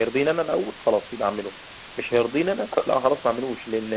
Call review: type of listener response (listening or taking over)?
listening